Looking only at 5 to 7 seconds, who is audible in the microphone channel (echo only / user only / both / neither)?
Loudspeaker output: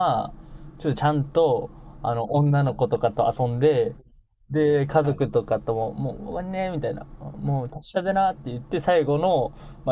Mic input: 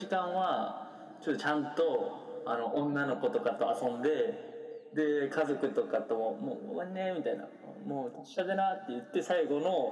echo only